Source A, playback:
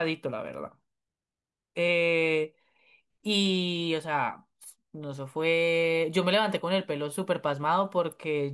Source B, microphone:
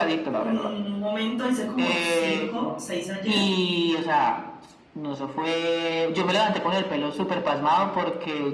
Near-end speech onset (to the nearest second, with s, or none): 0 s